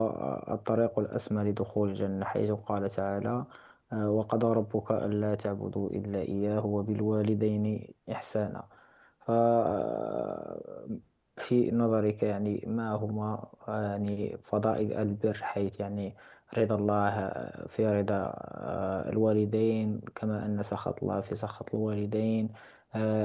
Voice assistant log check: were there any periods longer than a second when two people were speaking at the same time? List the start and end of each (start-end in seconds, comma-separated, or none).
none